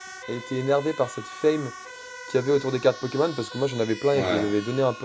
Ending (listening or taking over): listening